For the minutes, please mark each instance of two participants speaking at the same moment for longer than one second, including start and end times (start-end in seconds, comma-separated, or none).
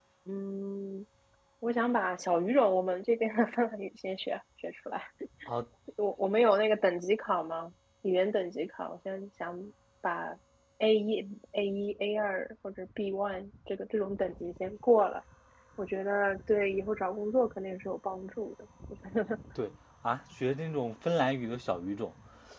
none